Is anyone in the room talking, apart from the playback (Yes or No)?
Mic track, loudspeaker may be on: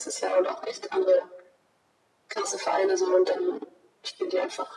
No